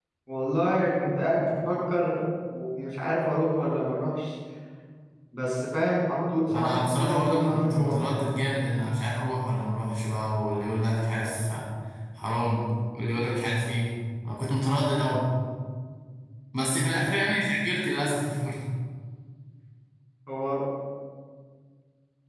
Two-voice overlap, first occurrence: 6.5 s

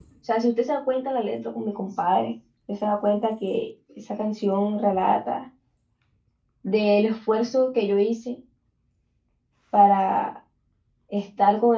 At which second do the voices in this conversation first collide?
none

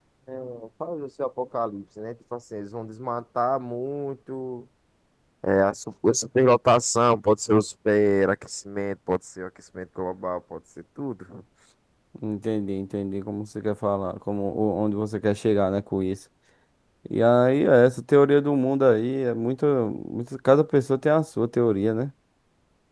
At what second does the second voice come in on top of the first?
none

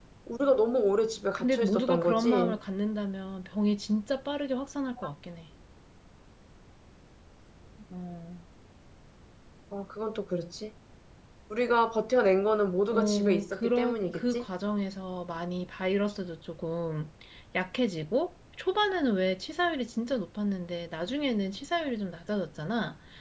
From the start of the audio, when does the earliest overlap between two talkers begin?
1.4 s

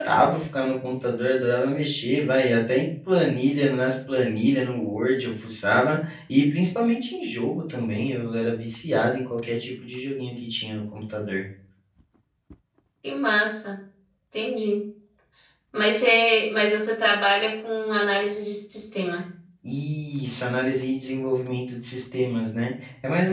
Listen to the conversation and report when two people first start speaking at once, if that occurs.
none

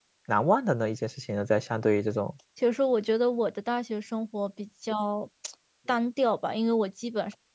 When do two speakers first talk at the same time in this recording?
none

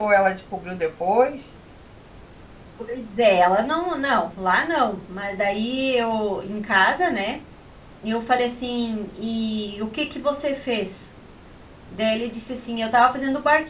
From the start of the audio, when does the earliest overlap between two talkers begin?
none

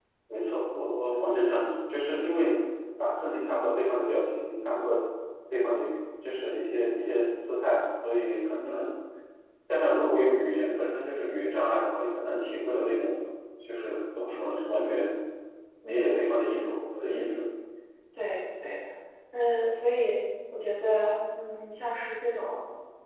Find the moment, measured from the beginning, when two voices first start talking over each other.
none

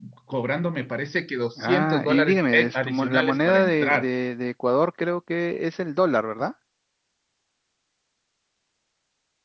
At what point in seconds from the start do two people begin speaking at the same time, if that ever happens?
1.6 s

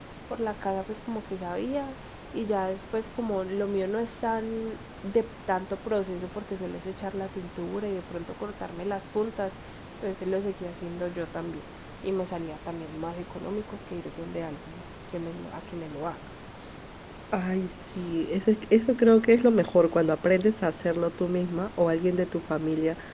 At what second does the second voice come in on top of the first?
none

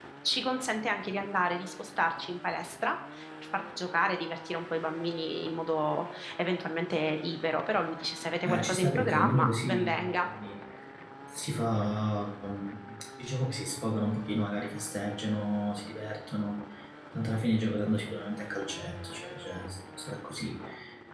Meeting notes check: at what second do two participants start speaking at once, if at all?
8.4 s

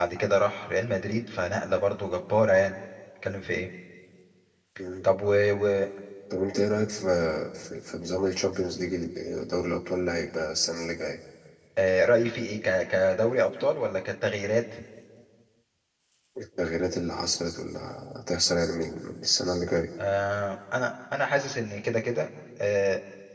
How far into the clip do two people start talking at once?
none

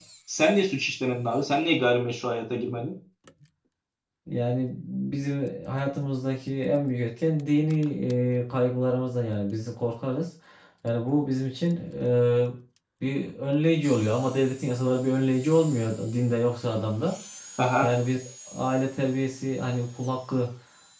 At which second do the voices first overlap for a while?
none

